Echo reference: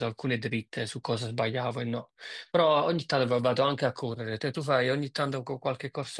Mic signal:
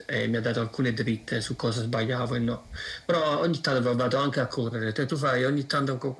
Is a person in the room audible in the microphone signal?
No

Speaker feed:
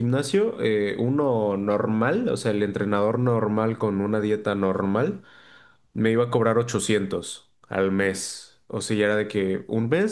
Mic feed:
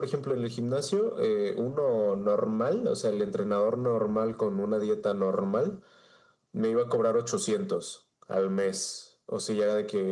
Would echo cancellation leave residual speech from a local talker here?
No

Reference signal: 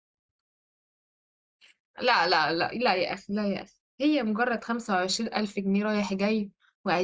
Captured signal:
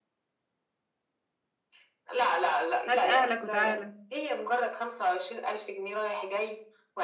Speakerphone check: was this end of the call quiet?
No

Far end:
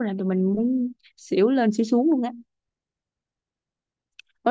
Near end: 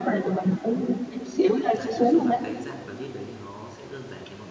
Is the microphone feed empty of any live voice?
No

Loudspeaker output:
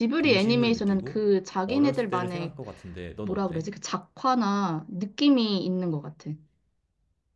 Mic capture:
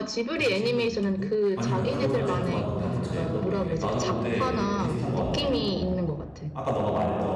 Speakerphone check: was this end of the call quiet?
No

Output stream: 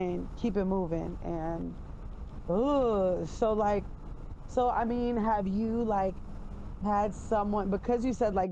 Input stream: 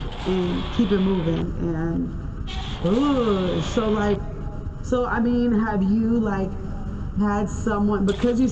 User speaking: No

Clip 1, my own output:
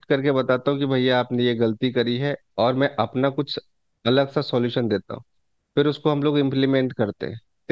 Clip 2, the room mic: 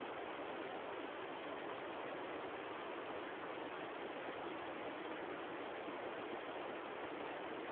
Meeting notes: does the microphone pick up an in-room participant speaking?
No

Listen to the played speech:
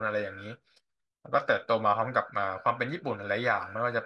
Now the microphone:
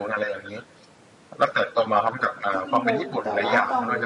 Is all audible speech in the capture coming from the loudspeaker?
No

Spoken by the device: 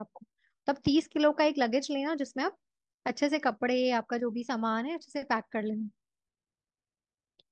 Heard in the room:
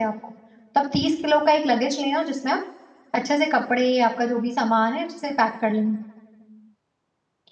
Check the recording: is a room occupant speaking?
No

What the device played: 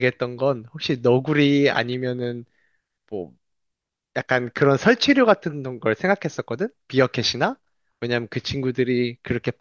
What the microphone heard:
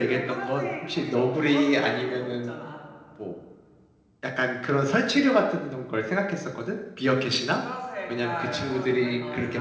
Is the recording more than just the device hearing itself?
Yes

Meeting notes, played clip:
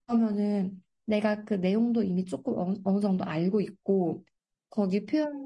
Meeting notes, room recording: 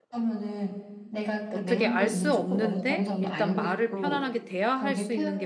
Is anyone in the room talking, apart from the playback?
Yes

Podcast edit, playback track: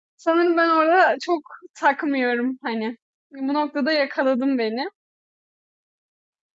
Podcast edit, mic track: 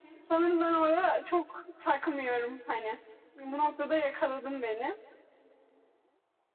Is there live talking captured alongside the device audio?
No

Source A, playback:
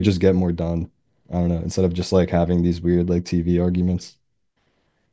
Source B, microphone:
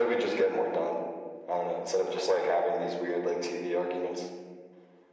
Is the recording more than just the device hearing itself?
No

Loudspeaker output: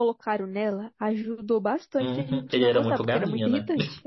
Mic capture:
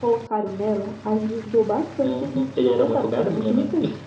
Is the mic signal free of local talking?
Yes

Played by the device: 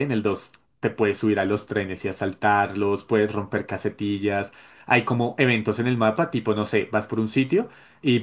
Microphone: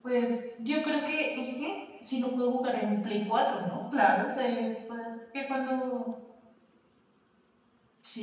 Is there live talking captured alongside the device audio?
Yes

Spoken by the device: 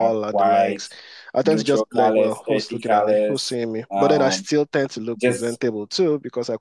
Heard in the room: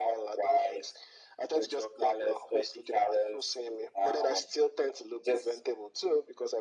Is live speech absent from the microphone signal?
Yes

